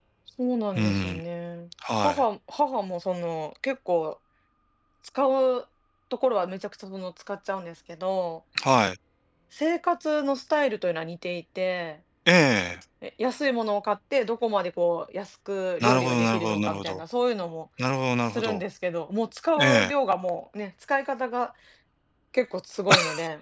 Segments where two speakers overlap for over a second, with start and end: 15.8-17.0

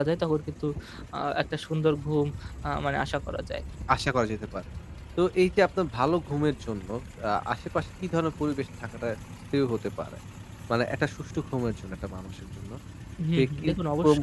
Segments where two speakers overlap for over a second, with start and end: none

